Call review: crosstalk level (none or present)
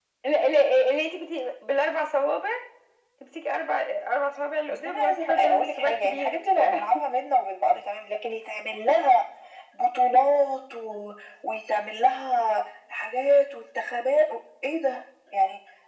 present